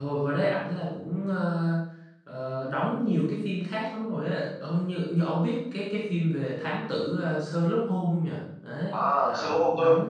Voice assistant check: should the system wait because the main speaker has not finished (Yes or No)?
No